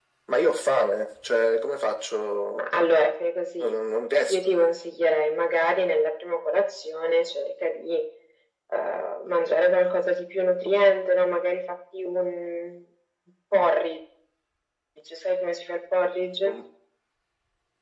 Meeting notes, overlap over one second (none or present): none